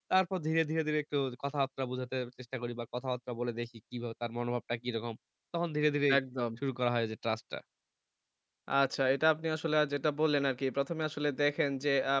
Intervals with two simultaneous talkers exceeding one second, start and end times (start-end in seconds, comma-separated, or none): none